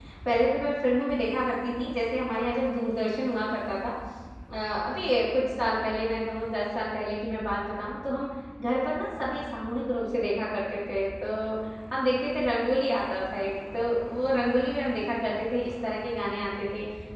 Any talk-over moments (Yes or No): No